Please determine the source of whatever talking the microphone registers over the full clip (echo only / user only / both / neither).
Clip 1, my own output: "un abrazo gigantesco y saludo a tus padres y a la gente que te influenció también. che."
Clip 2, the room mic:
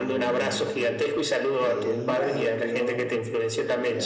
both